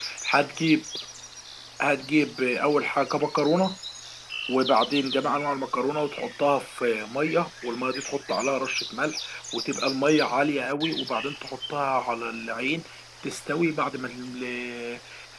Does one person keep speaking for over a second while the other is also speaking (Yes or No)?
No